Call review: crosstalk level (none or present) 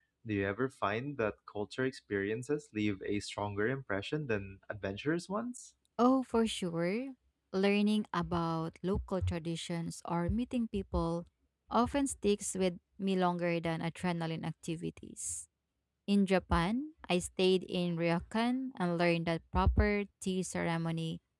none